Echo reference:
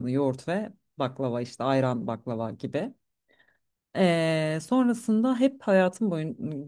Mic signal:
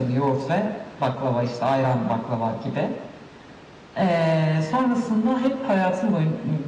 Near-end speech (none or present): none